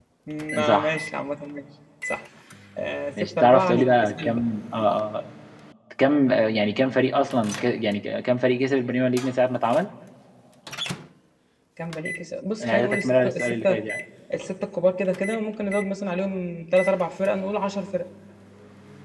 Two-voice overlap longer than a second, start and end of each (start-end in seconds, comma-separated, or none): 3.2-4.5, 12.6-13.8